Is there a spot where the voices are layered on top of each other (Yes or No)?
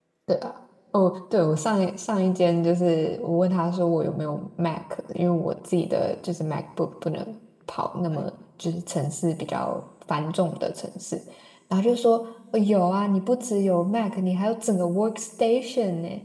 No